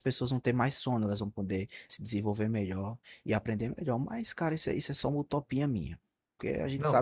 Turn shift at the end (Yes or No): Yes